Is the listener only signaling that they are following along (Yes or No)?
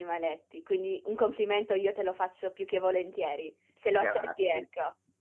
No